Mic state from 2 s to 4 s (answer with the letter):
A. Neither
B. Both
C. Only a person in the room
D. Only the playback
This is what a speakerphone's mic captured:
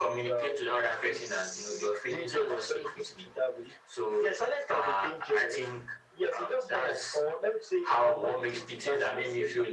D